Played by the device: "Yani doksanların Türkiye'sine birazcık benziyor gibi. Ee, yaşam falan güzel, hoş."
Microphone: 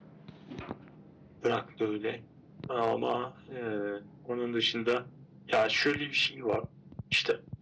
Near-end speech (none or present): present